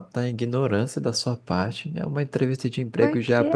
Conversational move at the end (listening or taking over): listening